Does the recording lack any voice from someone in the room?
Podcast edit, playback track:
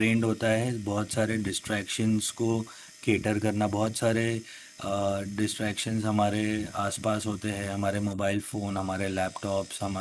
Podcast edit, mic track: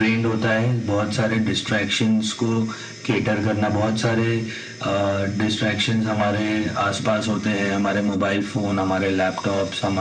Yes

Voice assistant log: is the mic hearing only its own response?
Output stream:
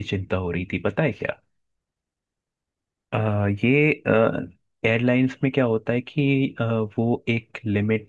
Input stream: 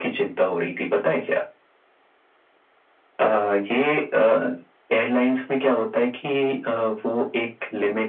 Yes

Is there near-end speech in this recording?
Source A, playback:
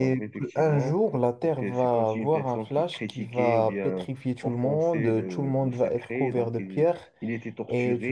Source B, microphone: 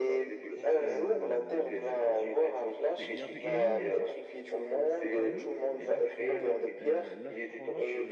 Yes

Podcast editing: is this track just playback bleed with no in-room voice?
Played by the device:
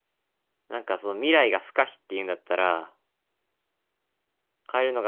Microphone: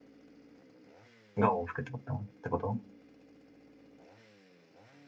No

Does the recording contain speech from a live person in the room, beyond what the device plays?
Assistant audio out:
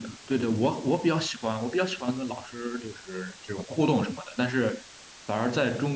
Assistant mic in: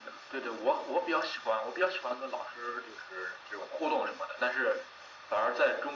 No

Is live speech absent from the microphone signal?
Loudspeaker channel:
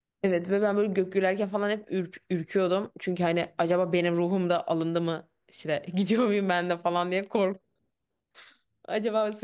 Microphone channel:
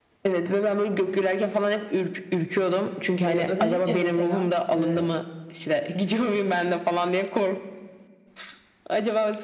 No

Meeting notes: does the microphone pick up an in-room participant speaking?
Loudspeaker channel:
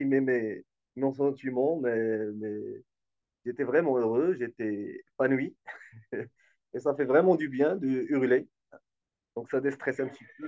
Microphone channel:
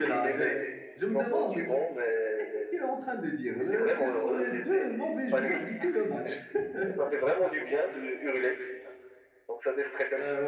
Yes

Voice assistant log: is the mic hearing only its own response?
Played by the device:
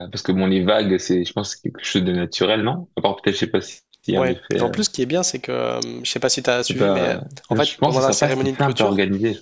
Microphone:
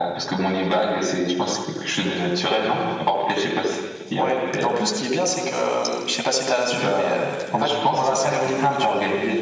Yes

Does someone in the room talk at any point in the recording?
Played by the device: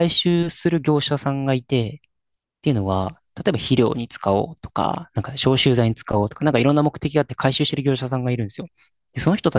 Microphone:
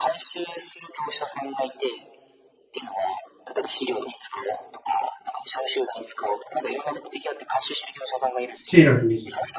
Yes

